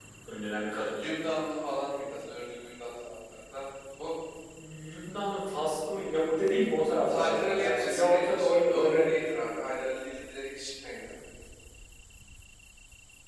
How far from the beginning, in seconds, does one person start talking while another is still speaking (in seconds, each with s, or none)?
7.1 s